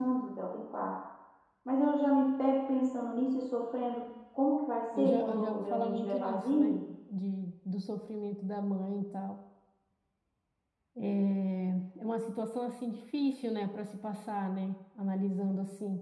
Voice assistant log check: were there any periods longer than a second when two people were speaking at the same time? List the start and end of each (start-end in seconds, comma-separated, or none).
5.0-6.8